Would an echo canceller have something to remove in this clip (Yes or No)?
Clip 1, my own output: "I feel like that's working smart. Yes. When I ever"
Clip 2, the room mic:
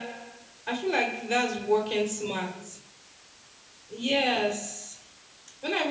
Yes